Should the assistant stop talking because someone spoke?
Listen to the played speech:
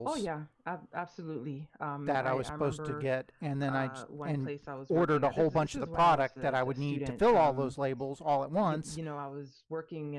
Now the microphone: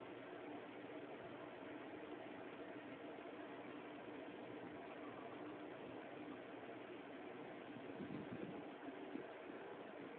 No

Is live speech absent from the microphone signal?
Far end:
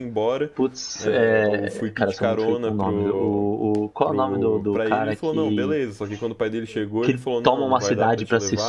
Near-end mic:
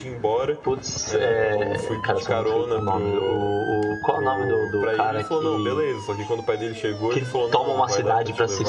Yes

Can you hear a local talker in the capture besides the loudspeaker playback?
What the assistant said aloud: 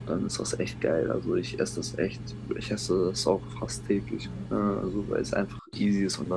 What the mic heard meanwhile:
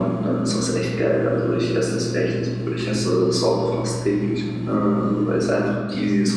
No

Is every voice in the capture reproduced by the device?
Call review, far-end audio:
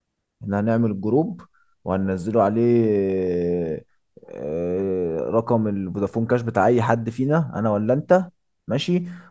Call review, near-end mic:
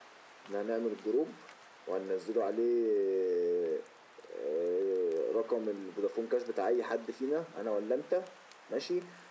Yes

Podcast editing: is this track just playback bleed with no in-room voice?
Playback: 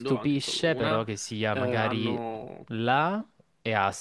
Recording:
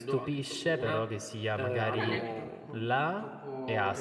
No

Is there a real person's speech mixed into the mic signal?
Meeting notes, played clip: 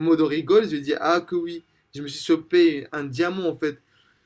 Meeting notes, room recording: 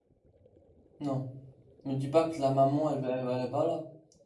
Yes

